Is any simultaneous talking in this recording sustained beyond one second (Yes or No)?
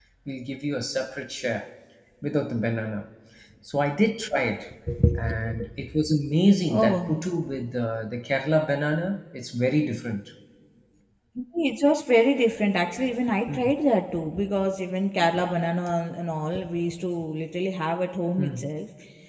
No